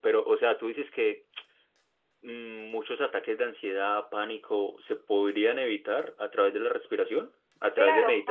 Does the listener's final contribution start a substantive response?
Yes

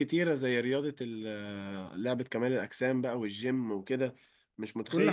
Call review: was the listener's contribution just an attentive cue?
Yes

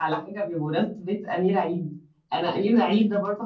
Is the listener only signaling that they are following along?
Yes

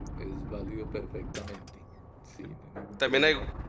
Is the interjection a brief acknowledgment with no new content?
No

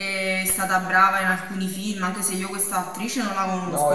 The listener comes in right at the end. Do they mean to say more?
Yes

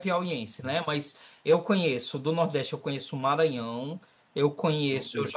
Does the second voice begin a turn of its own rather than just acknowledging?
No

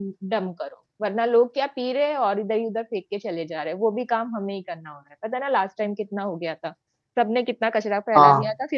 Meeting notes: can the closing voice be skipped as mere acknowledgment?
Yes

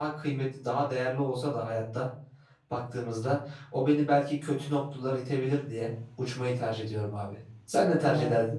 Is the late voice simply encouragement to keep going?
No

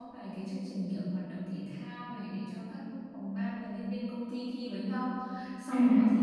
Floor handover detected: No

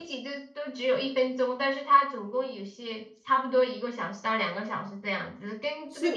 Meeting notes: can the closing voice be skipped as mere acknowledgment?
No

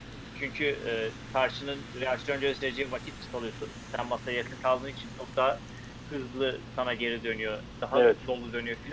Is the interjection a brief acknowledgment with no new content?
Yes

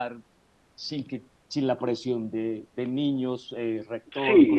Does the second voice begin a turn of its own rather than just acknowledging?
Yes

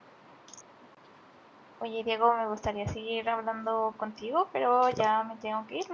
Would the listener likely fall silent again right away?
Yes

